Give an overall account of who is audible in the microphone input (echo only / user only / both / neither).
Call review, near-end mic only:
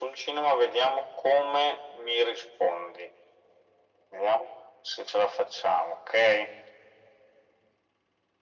echo only